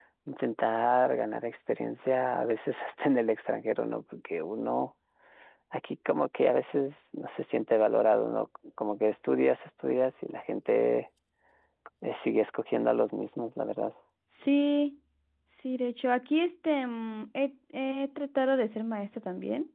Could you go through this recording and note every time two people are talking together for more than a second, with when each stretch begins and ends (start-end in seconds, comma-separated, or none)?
none